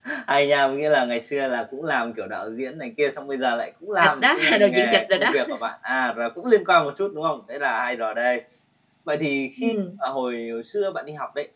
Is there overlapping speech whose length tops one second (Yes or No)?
Yes